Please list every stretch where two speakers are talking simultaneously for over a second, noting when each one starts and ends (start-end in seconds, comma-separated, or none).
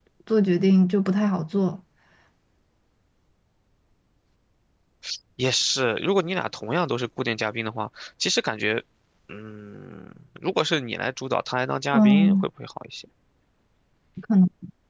none